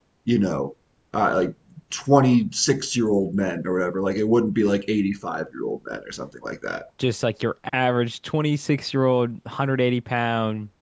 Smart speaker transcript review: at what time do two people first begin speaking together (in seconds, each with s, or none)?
none